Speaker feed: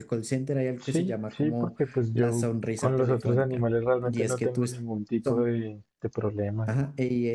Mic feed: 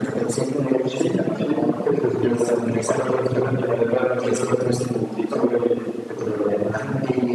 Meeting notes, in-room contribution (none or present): none